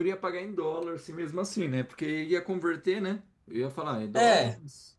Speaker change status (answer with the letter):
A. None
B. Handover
B